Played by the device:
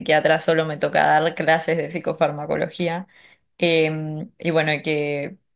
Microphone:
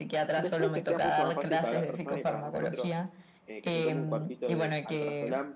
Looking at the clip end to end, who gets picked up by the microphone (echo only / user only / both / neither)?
both